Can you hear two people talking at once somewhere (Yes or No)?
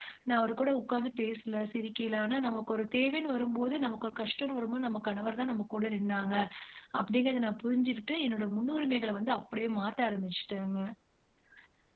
No